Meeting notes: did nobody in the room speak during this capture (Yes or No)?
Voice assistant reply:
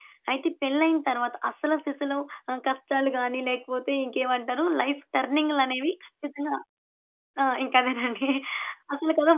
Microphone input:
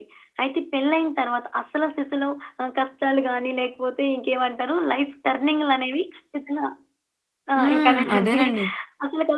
No